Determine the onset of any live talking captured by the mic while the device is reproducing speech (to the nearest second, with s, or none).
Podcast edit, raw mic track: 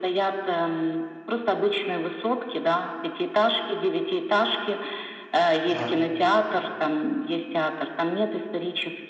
6 s